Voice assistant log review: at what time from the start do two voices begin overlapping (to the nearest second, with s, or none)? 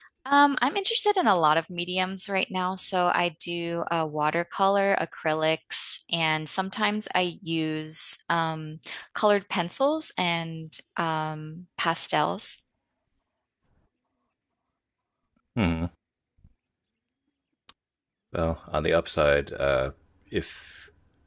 none